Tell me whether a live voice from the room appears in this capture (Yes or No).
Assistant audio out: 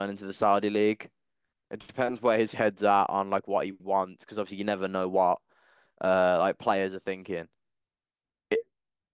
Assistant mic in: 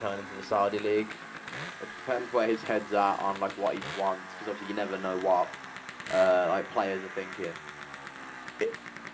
No